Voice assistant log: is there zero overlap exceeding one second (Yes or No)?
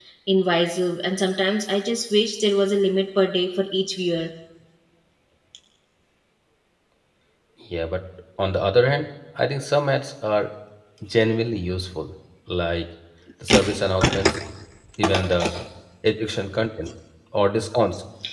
Yes